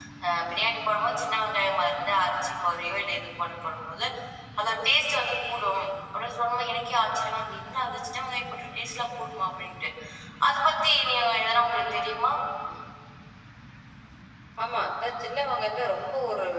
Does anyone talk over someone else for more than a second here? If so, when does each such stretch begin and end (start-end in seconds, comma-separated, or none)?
none